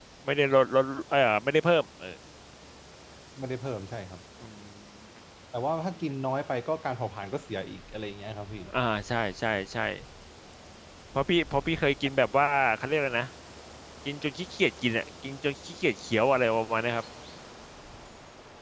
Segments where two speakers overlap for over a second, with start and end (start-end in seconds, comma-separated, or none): none